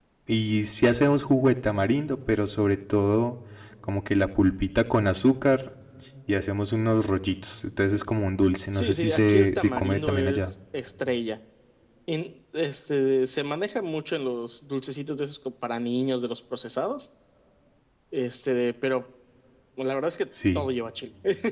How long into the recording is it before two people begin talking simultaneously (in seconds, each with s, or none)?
8.7 s